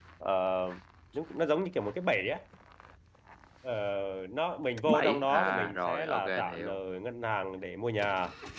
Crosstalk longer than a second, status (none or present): present